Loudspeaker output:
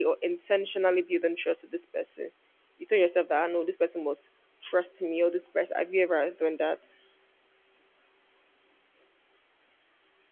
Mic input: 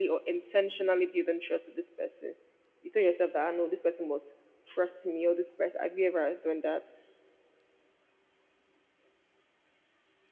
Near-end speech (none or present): none